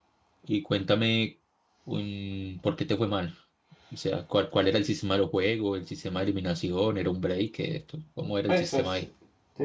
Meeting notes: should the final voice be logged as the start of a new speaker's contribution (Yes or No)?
Yes